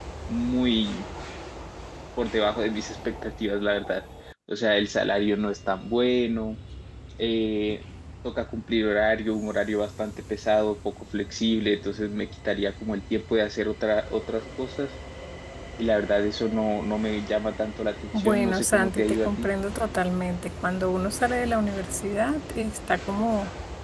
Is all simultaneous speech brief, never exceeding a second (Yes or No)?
No